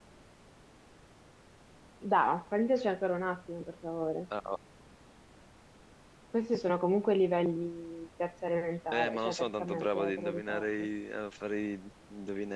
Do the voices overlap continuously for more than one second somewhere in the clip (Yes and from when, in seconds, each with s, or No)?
Yes, from 8.9 s